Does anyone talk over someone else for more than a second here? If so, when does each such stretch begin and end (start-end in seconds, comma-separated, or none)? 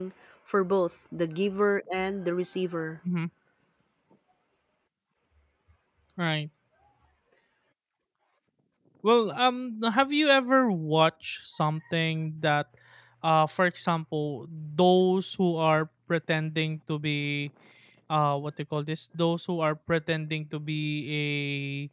none